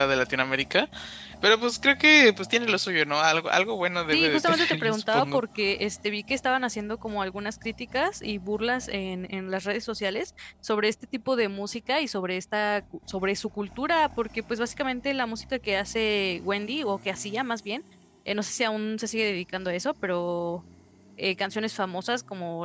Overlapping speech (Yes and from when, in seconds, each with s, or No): Yes, from 4.1 s